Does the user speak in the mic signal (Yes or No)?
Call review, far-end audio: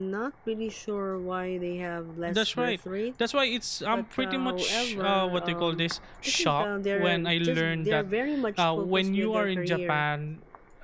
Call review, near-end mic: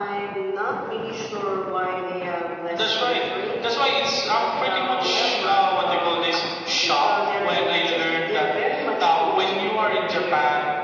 No